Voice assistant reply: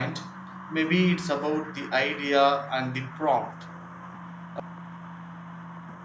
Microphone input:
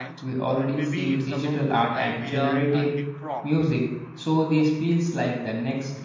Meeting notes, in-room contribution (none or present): present